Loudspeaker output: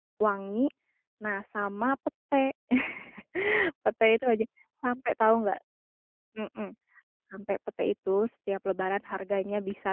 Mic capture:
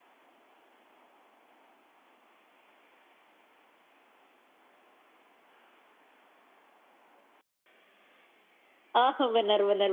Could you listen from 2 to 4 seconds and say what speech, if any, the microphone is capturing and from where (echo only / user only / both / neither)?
neither